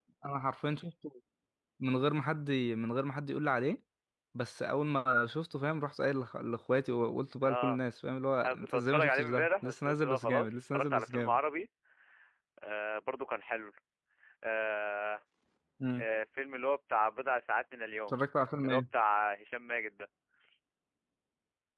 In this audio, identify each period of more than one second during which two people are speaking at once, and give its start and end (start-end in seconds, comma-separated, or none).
8.4-11.4